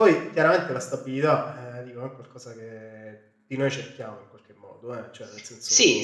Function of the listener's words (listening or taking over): taking over